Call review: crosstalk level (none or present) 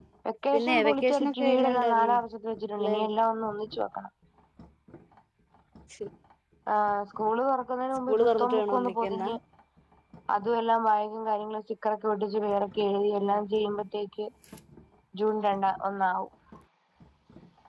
present